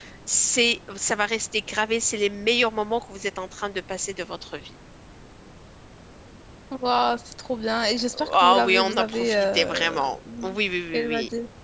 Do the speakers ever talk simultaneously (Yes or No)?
Yes